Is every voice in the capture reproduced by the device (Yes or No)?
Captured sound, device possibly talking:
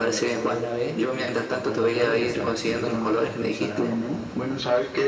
No